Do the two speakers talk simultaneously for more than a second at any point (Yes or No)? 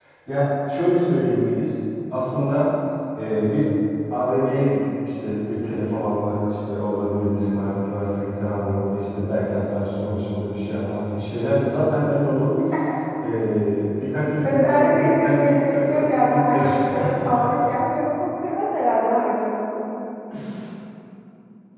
Yes